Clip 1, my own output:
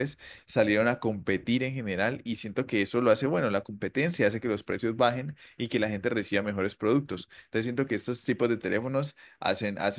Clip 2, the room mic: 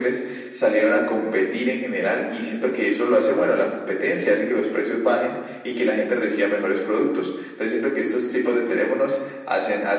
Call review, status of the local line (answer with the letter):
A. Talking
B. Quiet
B